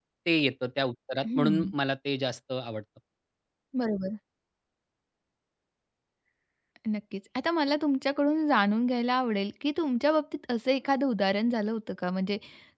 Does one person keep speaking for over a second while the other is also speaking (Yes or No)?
No